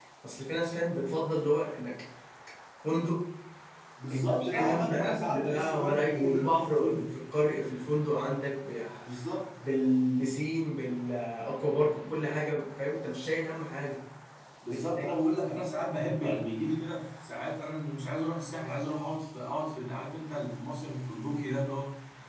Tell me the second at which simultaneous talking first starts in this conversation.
4 s

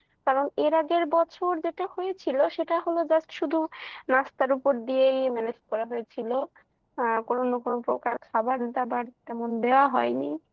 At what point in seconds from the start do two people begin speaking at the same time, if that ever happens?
none

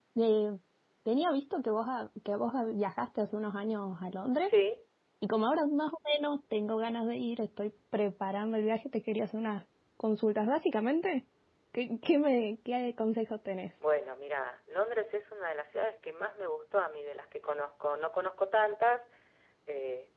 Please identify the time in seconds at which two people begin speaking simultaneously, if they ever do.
none

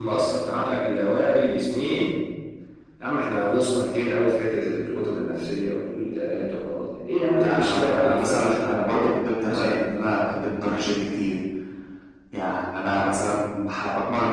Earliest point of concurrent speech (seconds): 7 s

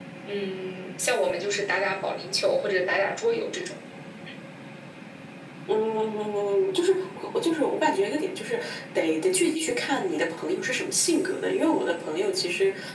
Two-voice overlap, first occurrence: none

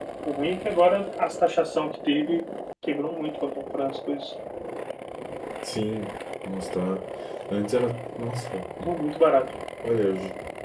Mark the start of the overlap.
none

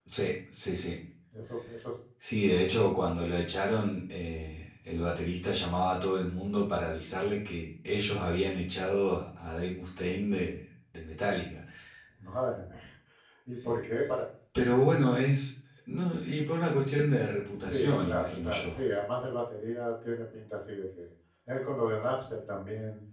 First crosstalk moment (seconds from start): 18 s

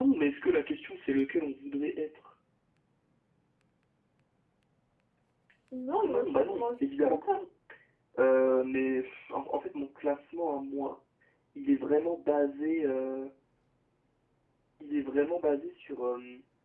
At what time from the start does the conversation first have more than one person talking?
6 s

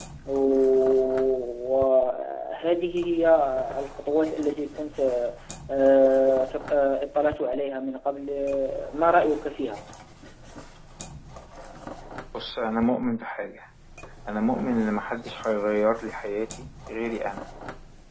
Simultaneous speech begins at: none

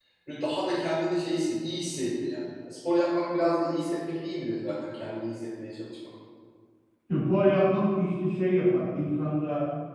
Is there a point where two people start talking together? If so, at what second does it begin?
none

